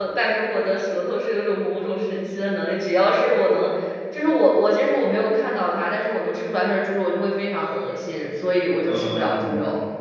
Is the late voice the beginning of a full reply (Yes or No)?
Yes